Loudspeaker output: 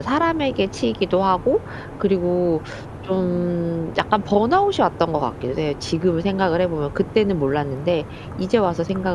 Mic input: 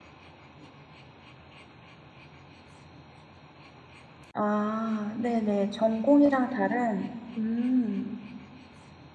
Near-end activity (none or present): present